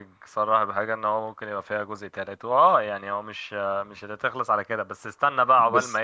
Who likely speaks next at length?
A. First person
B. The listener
A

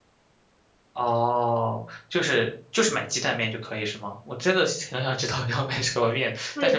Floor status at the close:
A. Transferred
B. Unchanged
A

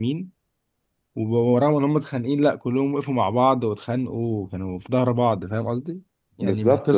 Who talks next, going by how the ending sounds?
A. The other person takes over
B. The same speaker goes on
B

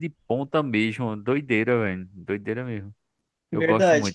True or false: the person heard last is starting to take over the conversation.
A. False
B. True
B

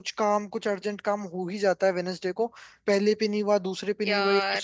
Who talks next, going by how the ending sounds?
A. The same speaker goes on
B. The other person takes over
A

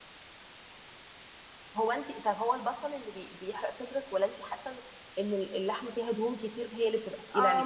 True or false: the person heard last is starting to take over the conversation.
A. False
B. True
B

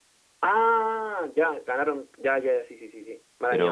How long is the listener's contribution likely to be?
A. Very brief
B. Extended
B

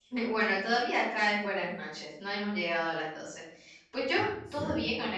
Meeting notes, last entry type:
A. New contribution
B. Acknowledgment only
B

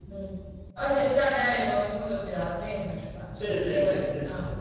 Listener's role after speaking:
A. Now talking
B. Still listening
A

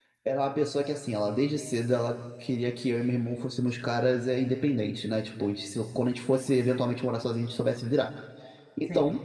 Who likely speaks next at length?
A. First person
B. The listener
A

